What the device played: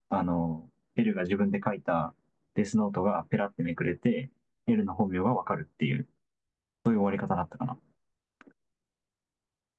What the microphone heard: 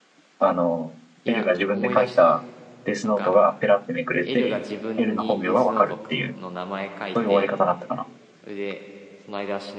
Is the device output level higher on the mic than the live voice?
Yes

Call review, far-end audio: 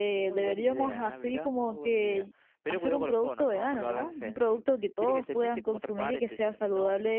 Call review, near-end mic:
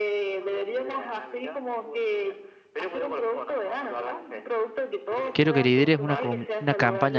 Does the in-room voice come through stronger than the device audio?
Yes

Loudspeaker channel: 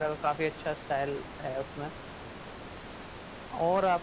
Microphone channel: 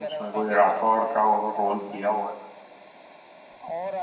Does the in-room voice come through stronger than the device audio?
Yes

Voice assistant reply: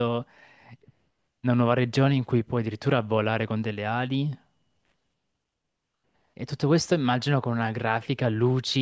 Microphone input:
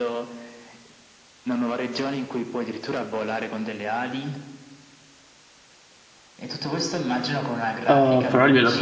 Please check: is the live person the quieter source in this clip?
No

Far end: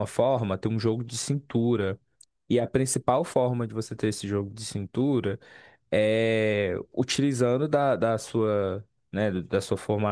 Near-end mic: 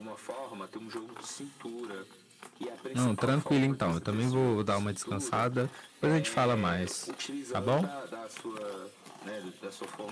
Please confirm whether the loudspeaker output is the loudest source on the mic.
No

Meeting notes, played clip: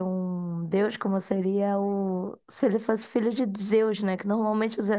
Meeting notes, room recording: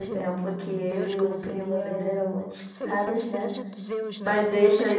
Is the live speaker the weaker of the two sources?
No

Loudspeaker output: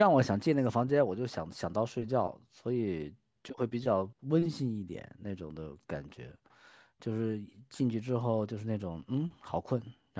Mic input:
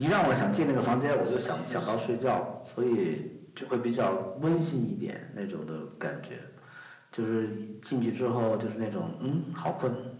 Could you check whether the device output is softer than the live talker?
No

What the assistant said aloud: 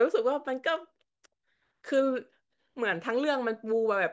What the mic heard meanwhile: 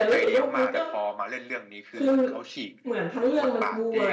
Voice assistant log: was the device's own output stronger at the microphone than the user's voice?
Yes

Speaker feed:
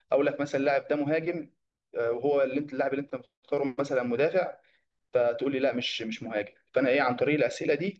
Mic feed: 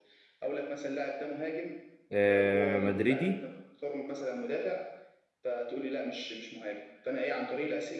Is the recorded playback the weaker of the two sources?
Yes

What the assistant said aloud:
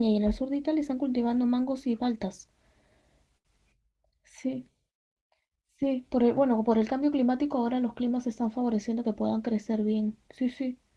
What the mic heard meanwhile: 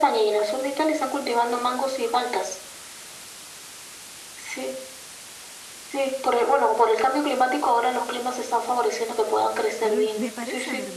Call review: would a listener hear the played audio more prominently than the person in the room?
Yes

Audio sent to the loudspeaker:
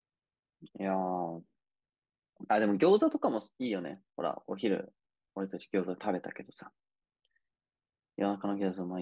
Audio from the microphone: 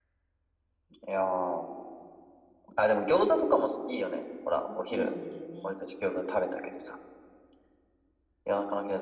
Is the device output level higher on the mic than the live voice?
Yes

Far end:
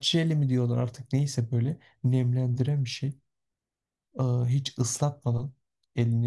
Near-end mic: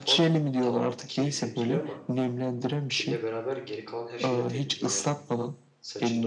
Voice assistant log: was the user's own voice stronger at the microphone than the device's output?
No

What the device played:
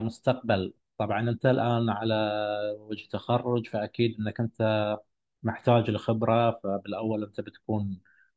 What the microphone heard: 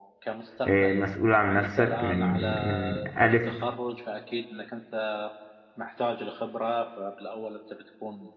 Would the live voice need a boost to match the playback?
No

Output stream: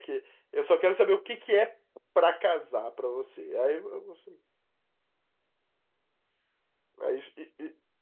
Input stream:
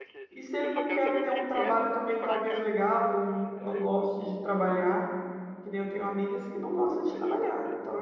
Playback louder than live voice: No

